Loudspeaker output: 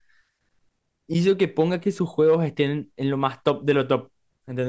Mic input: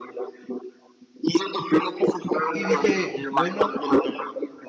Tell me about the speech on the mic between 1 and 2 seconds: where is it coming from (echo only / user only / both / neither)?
echo only